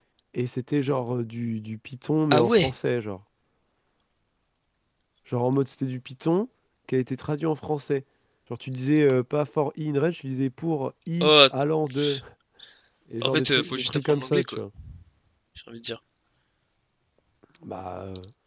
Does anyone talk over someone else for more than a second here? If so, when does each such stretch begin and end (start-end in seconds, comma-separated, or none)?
13.2-14.6